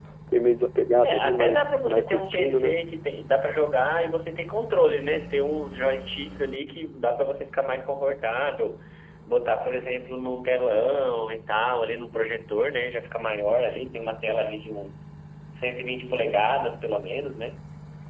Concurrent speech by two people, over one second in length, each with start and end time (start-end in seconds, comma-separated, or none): 1.0-2.7